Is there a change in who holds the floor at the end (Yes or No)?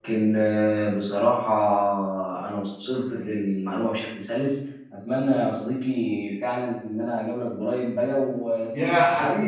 Yes